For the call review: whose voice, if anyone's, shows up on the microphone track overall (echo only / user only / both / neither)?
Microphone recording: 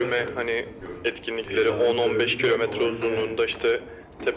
both